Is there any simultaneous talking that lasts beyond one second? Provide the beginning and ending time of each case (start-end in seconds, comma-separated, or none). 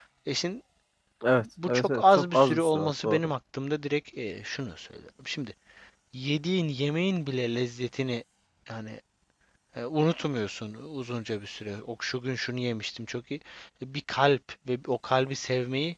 1.7-3.3